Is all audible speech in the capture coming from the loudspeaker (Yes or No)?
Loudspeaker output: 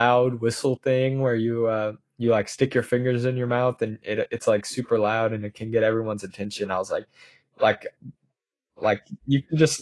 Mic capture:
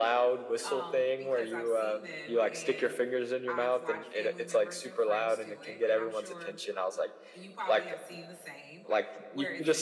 No